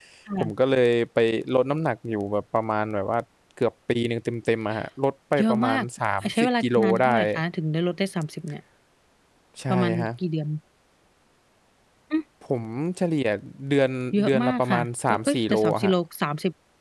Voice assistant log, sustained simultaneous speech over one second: present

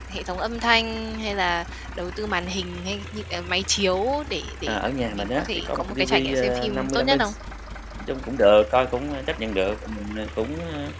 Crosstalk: present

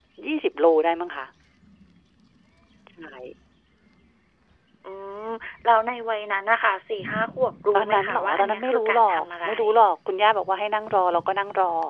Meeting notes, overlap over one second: present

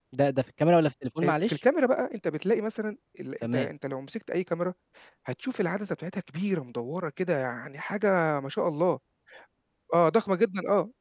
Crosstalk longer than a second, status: none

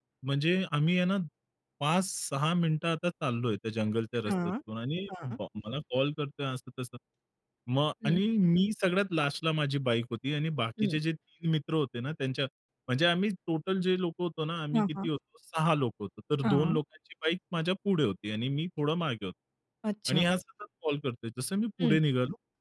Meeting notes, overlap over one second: none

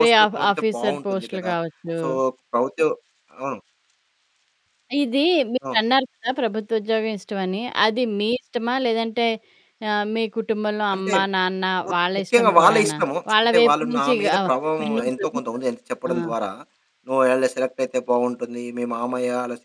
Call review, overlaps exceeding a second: present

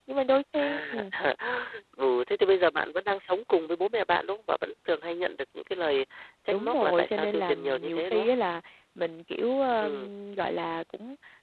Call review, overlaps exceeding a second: present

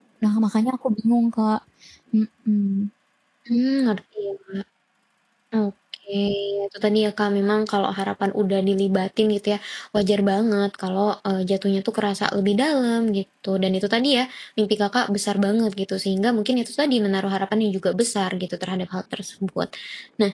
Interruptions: none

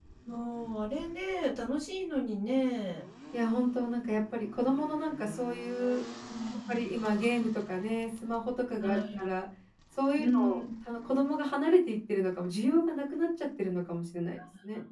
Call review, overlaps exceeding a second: none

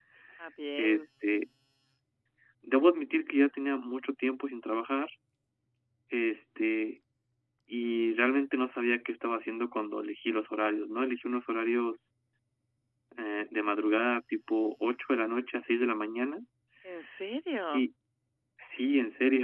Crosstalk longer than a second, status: none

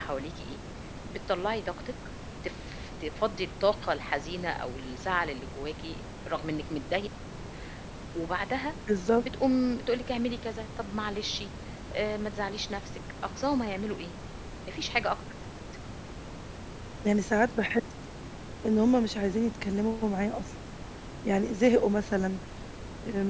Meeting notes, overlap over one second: none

